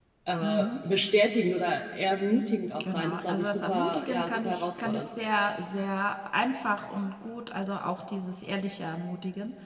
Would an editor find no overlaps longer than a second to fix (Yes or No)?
No